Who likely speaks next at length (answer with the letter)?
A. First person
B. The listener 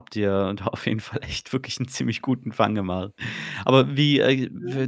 A